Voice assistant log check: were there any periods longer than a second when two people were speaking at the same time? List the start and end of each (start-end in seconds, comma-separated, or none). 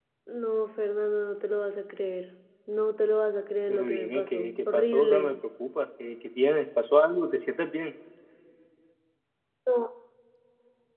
3.7-5.4